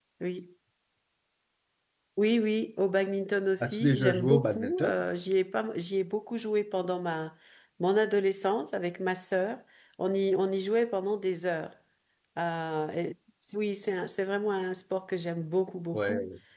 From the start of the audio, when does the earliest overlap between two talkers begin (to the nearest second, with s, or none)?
4 s